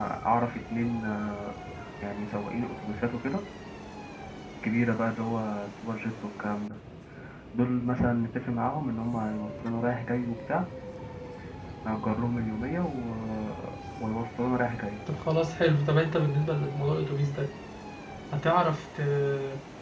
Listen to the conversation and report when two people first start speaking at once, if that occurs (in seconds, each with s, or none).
none